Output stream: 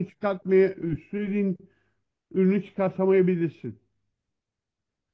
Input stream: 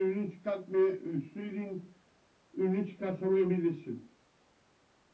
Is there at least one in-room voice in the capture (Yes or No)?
No